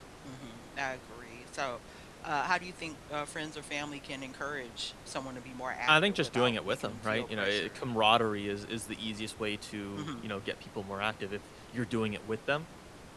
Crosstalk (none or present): present